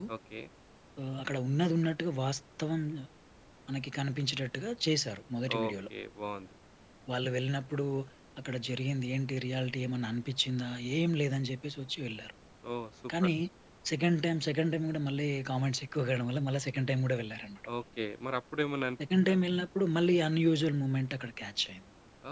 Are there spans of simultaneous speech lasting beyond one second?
No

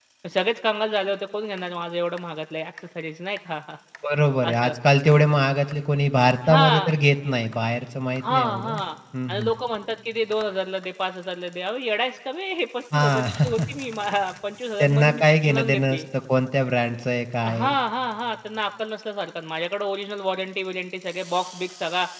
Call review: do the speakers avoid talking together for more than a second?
No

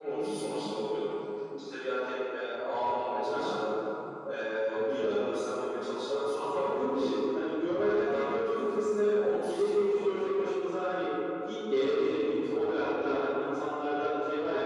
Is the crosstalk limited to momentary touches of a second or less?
No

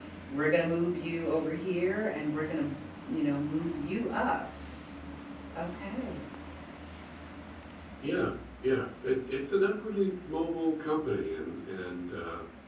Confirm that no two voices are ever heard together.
Yes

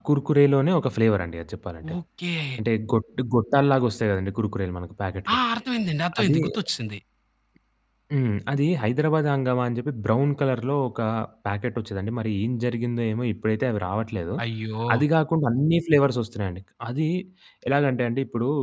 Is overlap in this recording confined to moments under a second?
Yes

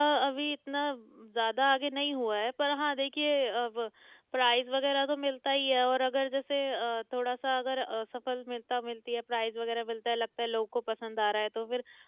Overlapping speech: No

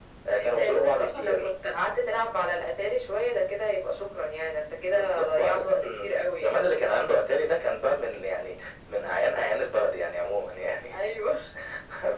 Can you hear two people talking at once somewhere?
Yes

